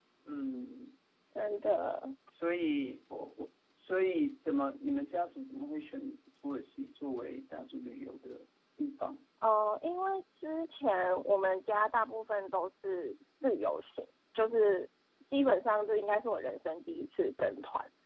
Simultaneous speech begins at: none

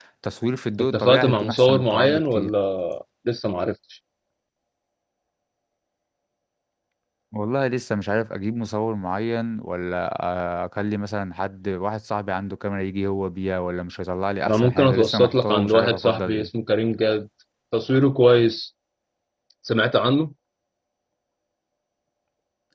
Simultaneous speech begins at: 0.8 s

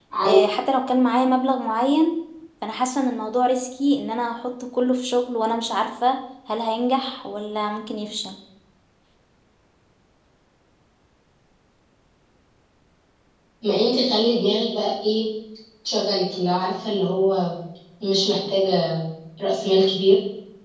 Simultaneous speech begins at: none

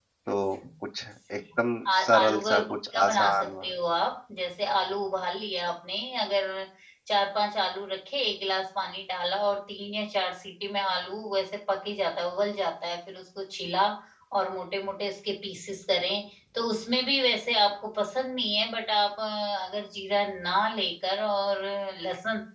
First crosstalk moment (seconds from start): 1.9 s

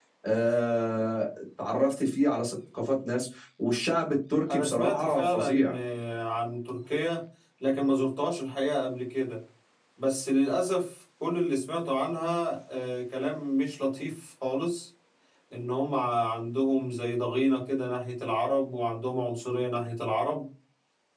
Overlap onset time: 4.5 s

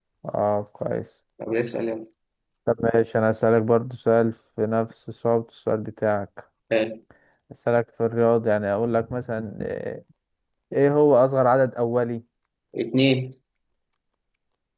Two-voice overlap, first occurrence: none

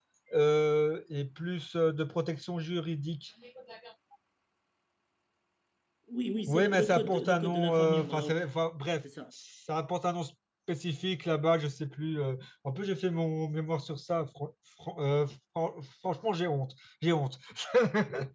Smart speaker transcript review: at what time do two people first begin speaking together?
6.5 s

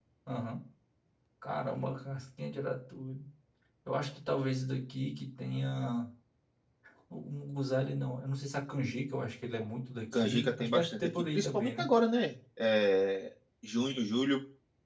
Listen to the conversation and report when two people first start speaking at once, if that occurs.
10.1 s

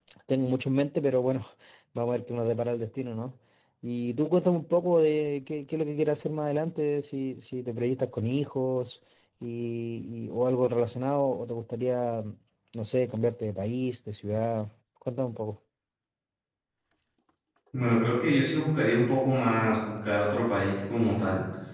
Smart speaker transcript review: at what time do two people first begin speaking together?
none

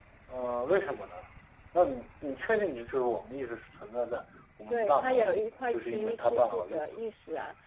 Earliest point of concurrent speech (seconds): 4.7 s

